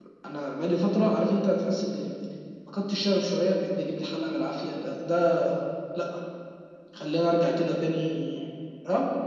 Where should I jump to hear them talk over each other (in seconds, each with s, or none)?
none